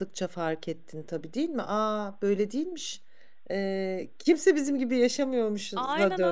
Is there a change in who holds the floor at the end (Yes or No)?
Yes